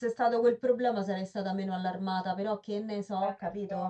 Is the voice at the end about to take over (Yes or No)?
Yes